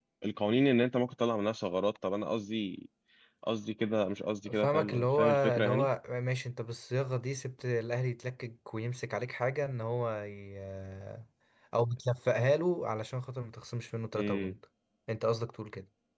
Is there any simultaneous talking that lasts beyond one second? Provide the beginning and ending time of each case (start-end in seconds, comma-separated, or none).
4.5-5.9